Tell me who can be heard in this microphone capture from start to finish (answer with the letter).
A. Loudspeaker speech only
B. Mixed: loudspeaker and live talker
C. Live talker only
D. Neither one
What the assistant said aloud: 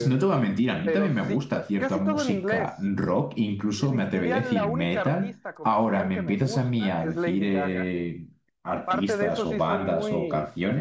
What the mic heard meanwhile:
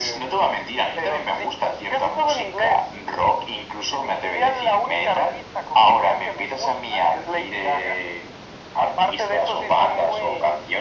A